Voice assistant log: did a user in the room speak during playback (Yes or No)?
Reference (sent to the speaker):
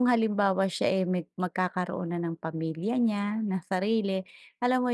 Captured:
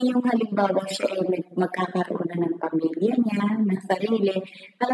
No